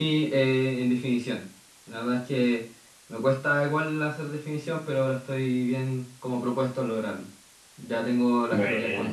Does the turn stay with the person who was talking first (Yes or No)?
Yes